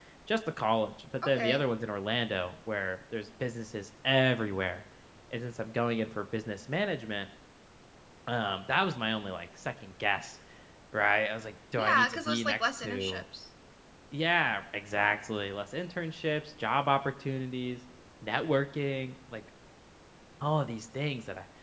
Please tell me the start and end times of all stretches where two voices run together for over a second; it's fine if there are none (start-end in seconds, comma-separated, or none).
11.8-13.2